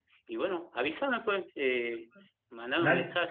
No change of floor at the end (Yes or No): Yes